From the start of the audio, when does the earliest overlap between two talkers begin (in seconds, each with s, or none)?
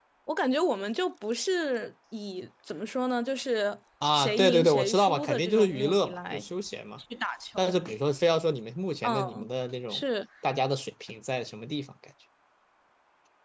4.1 s